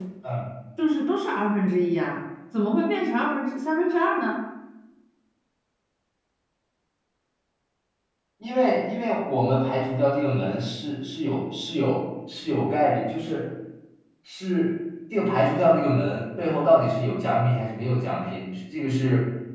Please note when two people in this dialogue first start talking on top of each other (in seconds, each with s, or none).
none